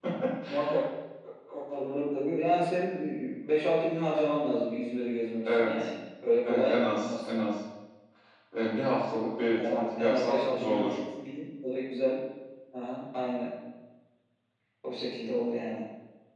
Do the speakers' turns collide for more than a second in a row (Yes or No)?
Yes